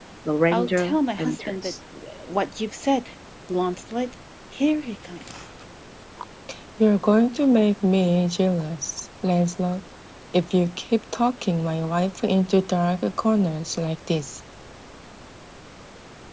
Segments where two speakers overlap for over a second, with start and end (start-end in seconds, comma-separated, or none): 0.5-1.7